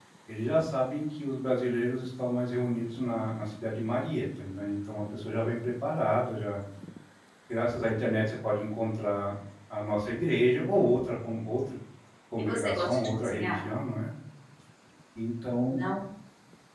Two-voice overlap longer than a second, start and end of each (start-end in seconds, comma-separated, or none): 12.4-13.6